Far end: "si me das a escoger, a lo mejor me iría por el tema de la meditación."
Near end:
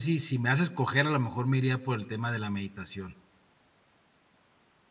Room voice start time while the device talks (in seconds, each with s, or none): none